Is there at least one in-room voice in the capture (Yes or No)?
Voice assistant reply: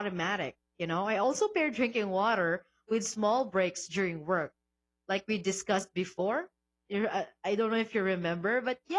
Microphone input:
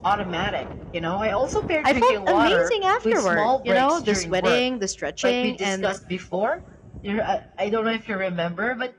Yes